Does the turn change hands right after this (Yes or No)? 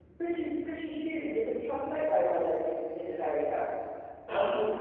No